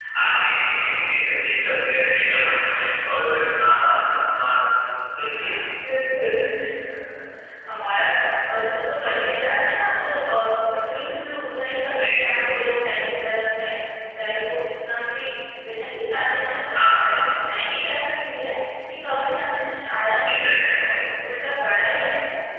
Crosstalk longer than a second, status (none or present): none